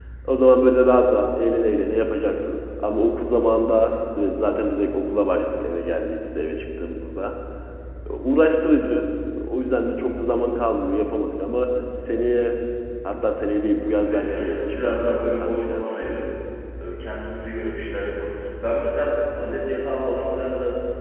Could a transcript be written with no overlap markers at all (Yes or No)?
No